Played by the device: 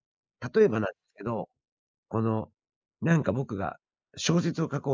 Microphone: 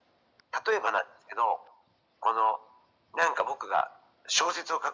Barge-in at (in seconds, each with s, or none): none